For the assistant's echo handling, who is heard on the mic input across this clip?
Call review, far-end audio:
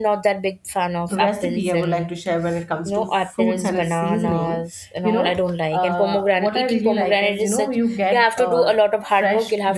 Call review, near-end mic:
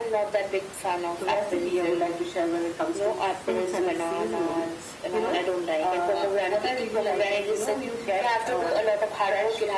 echo only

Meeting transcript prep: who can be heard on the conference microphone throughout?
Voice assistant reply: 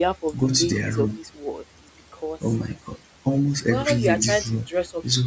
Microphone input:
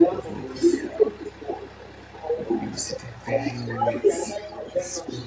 both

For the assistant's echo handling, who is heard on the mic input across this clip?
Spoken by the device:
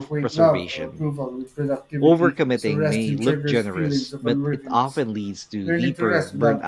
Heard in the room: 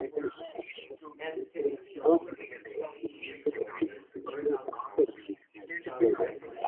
both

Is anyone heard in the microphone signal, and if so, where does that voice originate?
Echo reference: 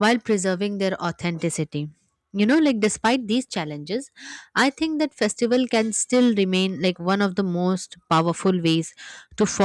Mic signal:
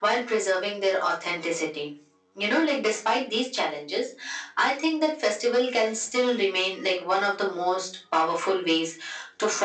echo only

